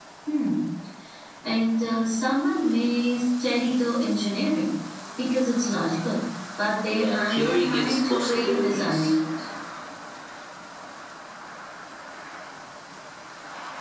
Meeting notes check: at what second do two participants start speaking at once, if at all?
6.9 s

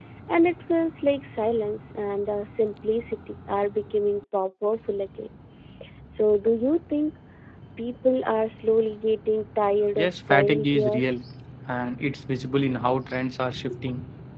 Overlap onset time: 10.0 s

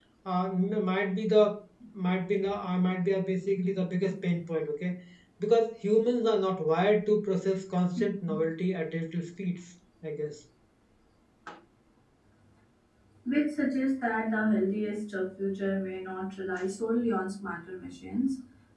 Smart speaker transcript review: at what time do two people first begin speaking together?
none

